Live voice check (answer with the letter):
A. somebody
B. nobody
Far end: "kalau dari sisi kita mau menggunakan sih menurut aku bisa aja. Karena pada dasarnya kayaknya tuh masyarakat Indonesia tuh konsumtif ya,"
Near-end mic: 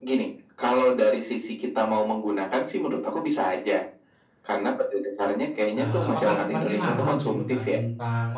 A